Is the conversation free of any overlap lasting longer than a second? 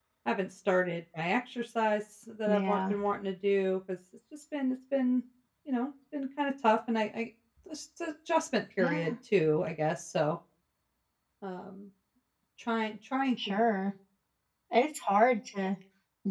Yes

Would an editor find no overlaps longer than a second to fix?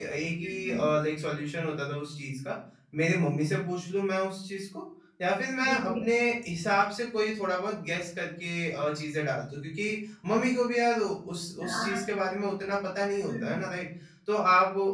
Yes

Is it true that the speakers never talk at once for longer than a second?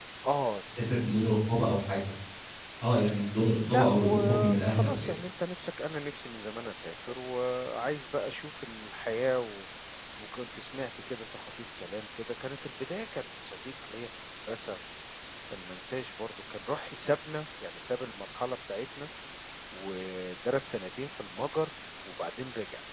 No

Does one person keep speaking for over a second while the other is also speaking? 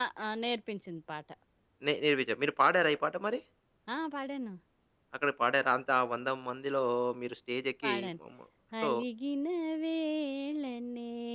No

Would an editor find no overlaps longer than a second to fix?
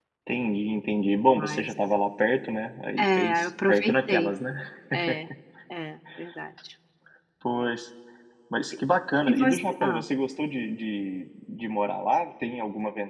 No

